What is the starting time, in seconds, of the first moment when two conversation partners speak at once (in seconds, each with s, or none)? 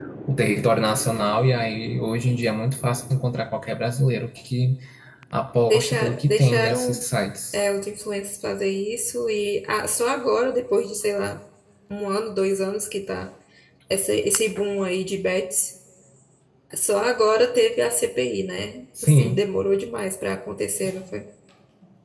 5.7 s